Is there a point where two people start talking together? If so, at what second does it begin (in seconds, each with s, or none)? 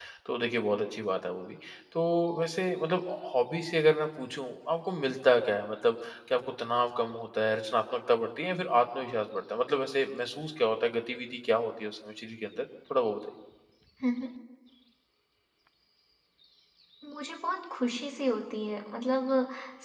none